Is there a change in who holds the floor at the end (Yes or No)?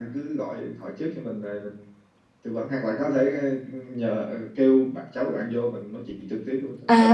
Yes